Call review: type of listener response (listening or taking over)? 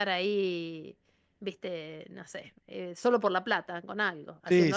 taking over